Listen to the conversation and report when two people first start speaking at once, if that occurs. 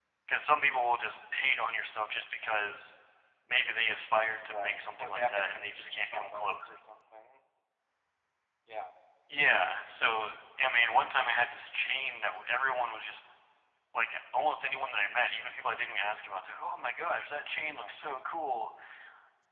4.4 s

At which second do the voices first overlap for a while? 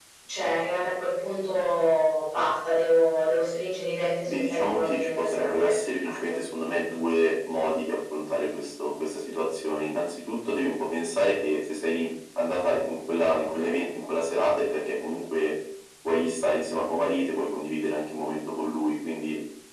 4.2 s

